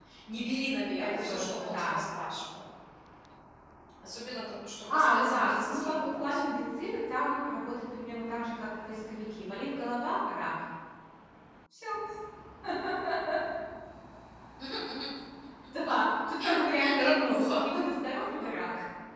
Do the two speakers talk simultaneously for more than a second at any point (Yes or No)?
Yes